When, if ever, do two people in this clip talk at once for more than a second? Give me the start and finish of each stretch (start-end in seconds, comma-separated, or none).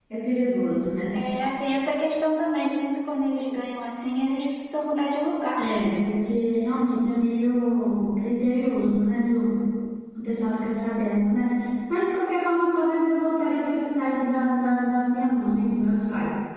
none